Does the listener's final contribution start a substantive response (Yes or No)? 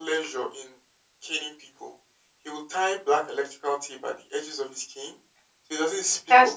No